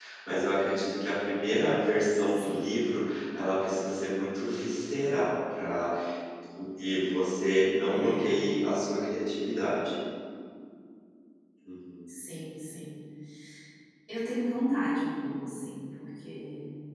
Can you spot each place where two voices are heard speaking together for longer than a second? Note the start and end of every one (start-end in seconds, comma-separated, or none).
none